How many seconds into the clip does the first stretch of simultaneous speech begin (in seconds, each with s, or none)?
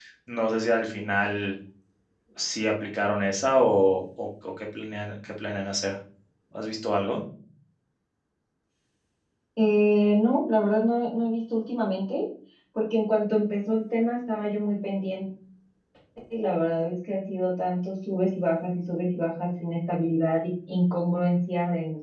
none